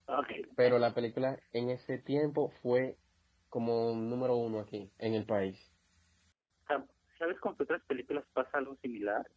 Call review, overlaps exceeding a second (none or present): none